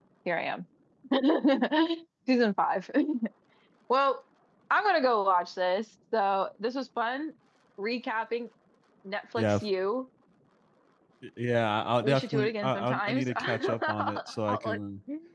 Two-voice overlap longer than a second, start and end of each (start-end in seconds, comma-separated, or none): 12.0-14.8